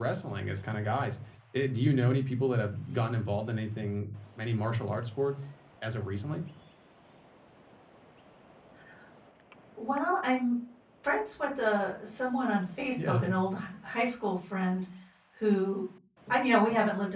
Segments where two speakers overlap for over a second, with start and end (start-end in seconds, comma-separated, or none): none